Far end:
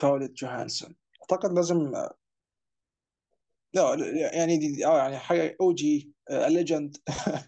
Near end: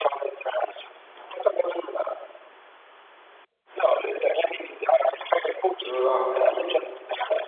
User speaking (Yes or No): Yes